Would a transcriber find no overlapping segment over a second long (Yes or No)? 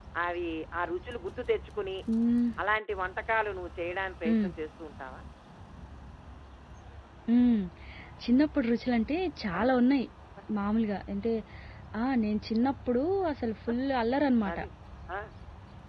Yes